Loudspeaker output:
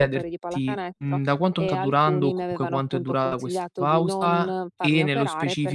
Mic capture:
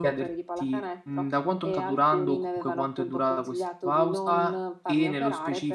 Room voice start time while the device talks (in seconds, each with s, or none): none